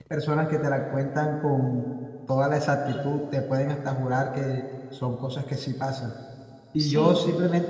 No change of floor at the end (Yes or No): Yes